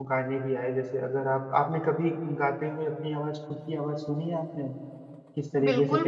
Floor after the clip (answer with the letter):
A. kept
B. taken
B